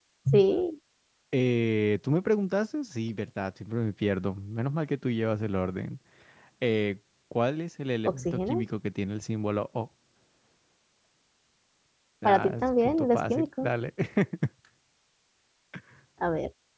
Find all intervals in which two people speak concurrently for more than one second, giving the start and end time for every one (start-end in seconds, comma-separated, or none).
12.2-13.7